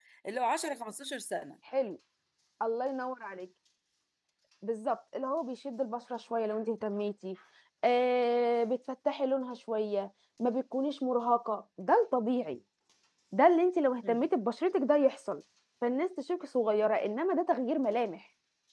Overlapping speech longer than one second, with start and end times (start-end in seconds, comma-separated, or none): none